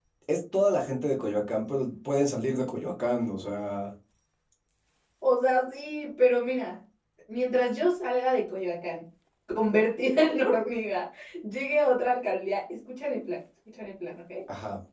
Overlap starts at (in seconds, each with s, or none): none